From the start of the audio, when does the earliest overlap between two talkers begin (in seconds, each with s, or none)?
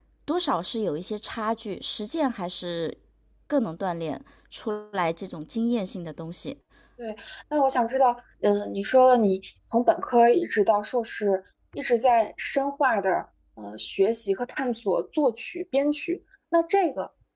none